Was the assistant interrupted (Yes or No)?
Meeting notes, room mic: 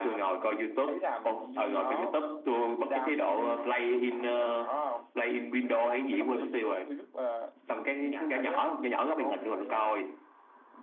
No